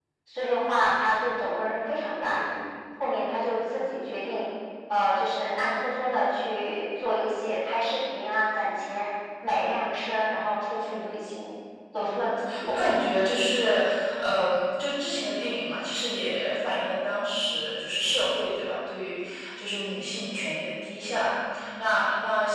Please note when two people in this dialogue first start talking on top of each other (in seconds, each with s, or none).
12.0 s